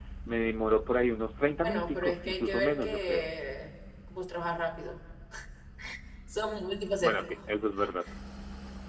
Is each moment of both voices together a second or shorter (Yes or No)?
No